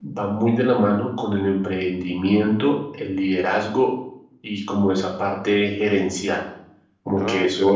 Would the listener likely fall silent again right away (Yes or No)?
Yes